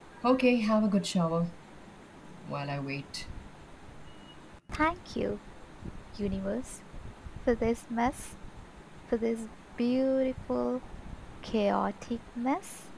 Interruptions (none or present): none